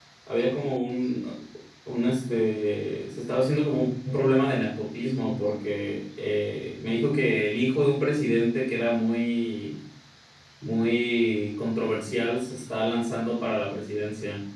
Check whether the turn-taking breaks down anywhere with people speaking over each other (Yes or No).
No